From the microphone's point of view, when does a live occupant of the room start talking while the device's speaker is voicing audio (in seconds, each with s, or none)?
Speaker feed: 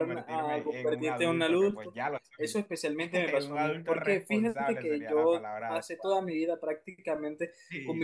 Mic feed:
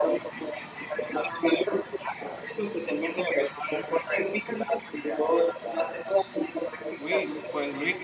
7.0 s